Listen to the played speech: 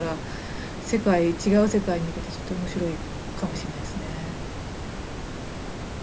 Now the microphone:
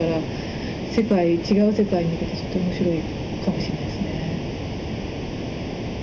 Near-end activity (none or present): none